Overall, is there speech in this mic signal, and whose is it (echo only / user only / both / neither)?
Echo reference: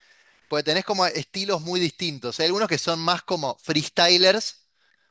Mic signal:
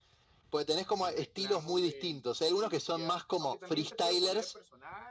both